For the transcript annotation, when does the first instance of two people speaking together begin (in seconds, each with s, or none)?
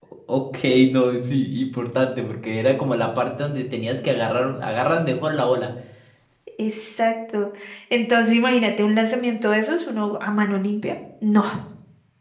none